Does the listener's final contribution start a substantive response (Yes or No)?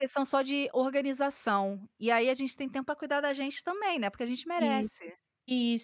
Yes